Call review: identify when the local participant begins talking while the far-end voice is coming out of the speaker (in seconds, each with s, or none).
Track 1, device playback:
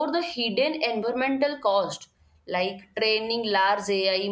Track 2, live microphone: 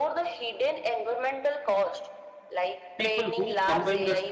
3.0 s